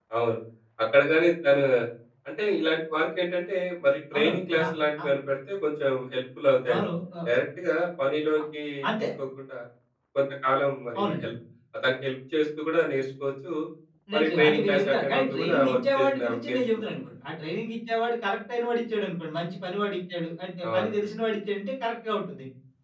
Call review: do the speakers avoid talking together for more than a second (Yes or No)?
No